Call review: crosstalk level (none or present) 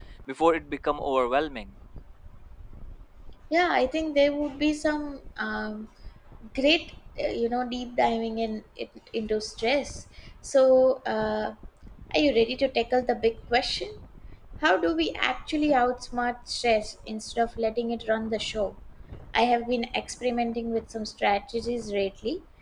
none